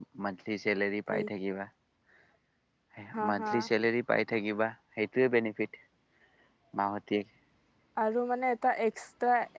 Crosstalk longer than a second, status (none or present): none